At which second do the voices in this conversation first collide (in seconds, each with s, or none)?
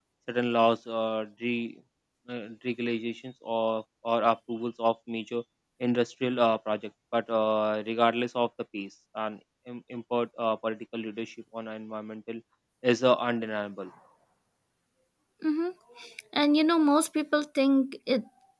none